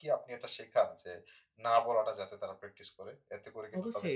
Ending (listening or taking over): taking over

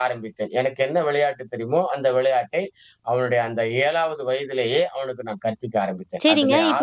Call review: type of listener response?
taking over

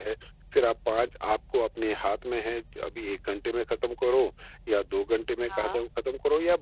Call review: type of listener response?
listening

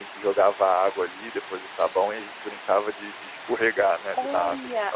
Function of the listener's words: taking over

